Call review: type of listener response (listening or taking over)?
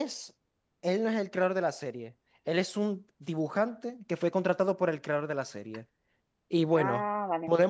listening